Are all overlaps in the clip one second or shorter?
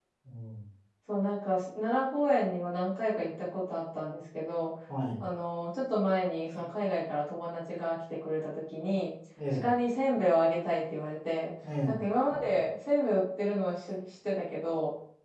Yes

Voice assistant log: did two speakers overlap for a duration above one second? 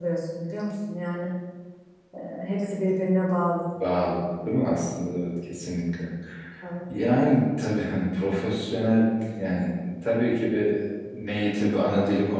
No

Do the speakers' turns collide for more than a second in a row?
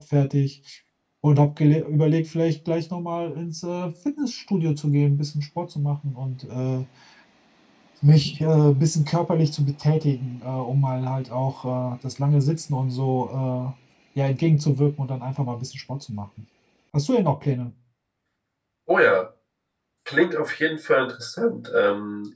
No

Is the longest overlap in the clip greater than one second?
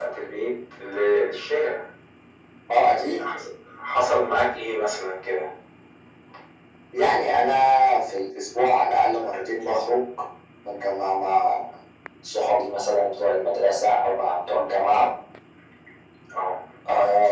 No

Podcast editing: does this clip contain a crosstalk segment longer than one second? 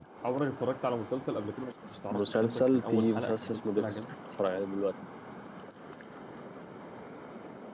Yes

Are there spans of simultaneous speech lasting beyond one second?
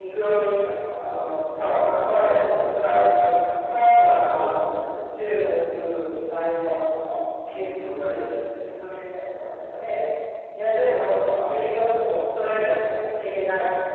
Yes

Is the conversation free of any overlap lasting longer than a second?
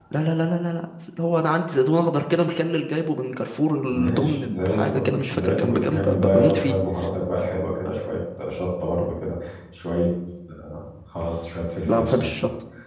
No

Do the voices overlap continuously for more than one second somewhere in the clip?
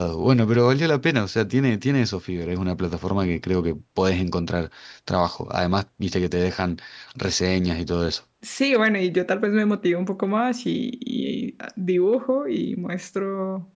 No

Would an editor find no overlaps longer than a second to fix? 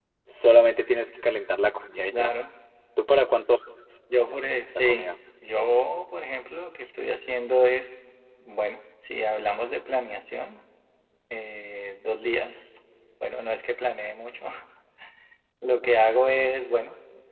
Yes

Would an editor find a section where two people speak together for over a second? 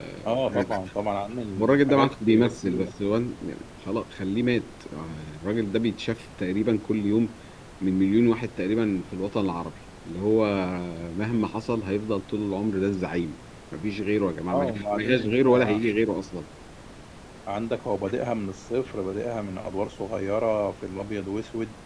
Yes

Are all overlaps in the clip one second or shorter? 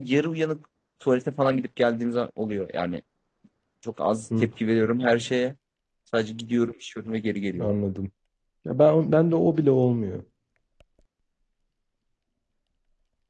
Yes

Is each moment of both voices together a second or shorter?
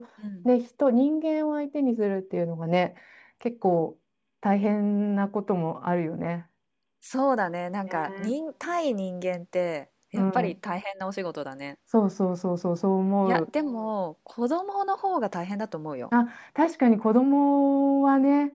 Yes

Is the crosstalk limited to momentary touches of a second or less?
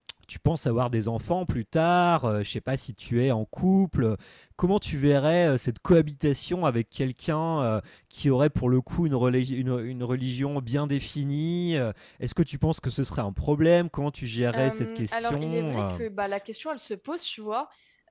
No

